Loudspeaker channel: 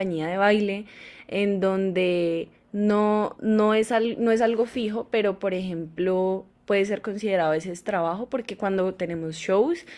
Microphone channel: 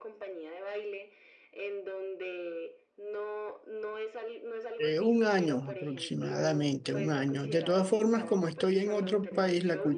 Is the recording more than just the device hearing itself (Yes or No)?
Yes